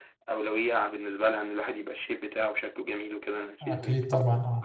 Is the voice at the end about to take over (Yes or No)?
Yes